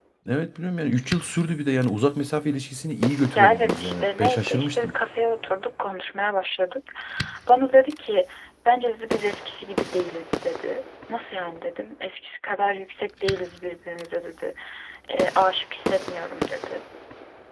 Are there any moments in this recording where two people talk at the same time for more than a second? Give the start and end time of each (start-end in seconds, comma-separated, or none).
3.4-4.9